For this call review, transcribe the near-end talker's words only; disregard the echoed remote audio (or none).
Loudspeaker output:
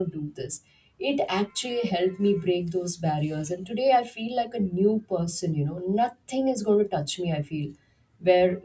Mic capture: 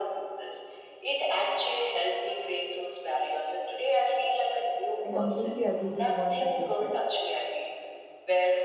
I completely agree to the one that you said.